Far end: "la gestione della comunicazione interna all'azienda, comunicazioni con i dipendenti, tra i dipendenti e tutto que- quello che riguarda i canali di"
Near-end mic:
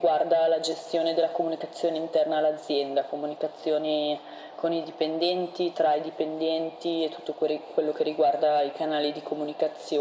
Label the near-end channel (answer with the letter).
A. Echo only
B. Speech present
A